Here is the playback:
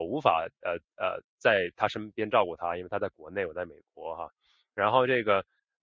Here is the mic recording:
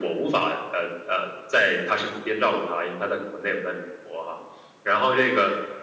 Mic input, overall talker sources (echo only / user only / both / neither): echo only